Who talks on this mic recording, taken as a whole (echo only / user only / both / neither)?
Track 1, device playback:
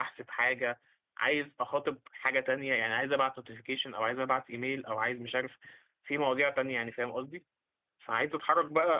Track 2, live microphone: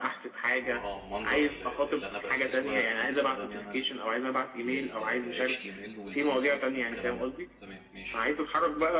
both